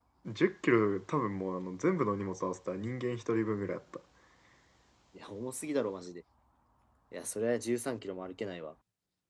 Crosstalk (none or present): none